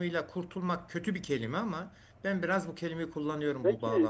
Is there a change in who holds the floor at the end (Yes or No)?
Yes